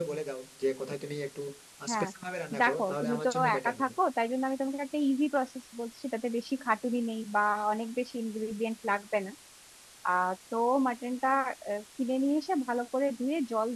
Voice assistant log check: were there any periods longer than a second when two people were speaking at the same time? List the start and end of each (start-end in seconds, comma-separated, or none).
2.6-3.9